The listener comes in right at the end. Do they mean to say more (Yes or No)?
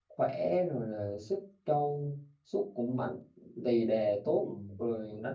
No